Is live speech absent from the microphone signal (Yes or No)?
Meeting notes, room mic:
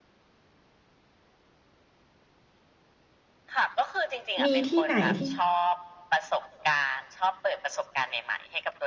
No